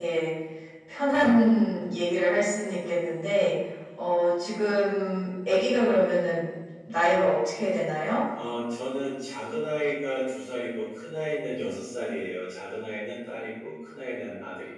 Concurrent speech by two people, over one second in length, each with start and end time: none

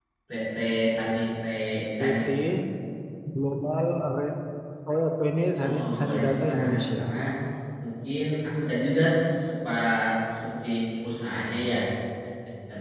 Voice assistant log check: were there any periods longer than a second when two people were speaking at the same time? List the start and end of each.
5.6-7.0

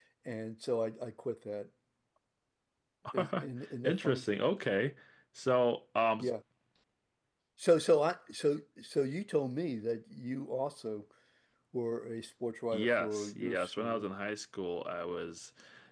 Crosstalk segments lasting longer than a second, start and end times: 12.7-14.0

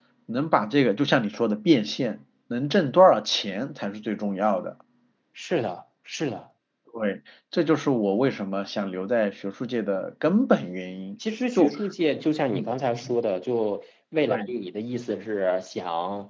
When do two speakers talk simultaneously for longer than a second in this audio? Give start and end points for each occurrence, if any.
none

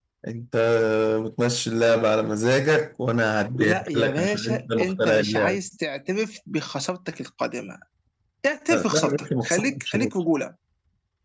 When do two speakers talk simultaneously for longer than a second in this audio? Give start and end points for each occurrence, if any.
3.5-5.6, 8.7-10.1

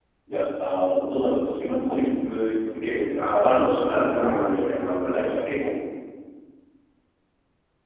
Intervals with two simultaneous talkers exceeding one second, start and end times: 3.2-4.5

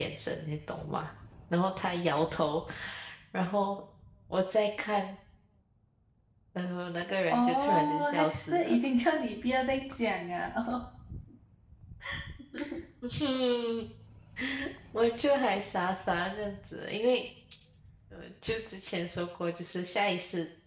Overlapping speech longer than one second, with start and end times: 7.3-8.8

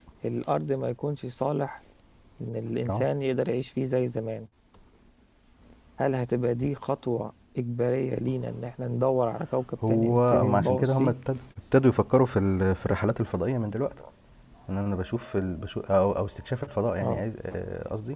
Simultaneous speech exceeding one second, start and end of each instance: 9.9-11.1

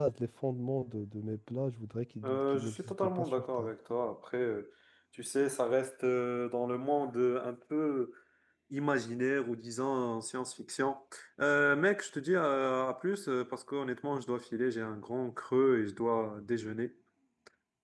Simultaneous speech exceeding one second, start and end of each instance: 2.2-3.7

